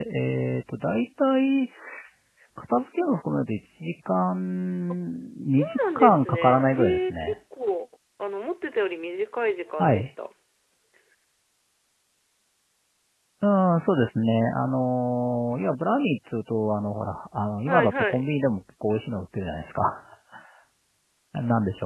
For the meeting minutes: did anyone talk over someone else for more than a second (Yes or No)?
Yes